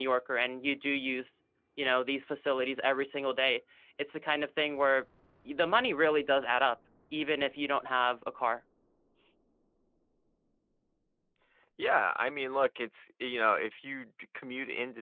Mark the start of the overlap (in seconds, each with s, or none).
none